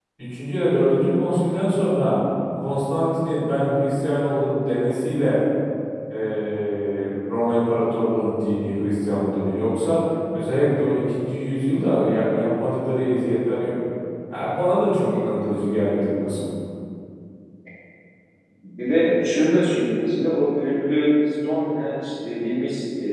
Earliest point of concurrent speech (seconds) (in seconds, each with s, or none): none